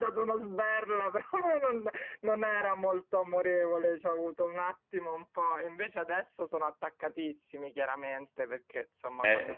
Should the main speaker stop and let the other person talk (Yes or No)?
Yes